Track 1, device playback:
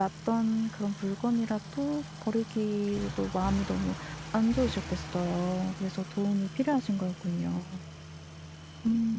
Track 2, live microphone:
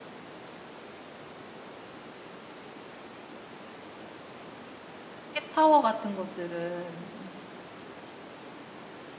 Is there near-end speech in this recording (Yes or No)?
Yes